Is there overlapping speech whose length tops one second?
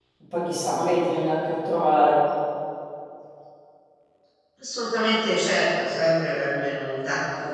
No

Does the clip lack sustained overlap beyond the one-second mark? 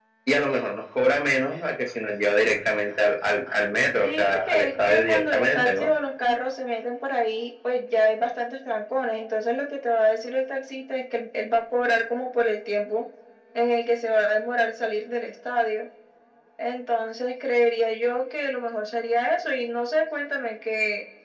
No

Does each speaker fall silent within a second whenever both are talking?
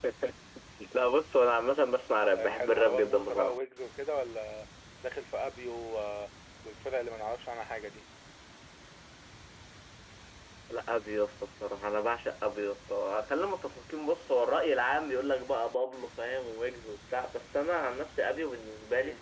No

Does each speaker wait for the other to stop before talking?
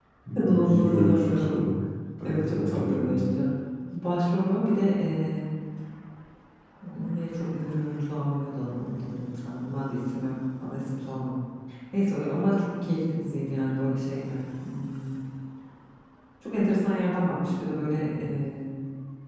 No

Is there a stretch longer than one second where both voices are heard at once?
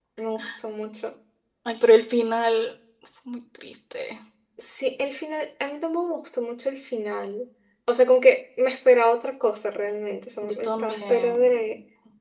Yes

